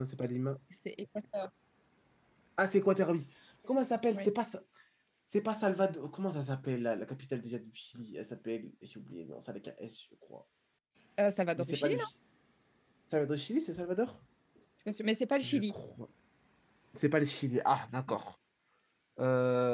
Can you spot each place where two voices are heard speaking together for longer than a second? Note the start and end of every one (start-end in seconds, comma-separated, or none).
none